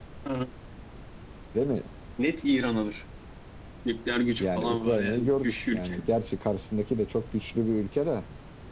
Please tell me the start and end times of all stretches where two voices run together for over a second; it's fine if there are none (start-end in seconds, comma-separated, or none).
4.4-6.0